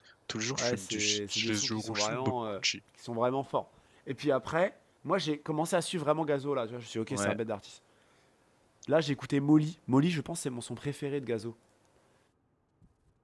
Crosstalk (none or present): present